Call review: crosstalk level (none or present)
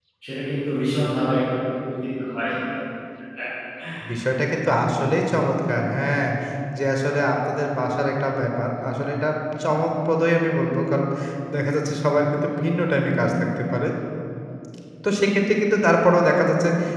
none